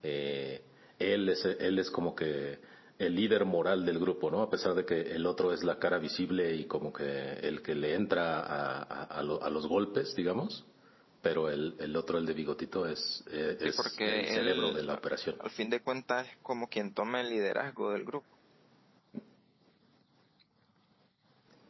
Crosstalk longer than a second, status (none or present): present